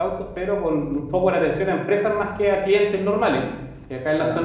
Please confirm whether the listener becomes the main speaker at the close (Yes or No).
No